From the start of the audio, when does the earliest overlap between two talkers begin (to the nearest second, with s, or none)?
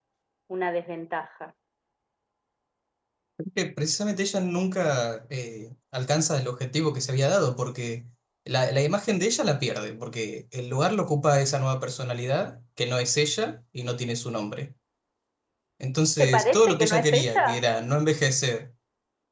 16 s